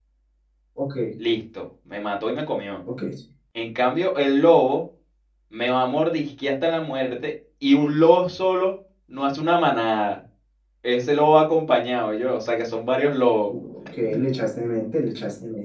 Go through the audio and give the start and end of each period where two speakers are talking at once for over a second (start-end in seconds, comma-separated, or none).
none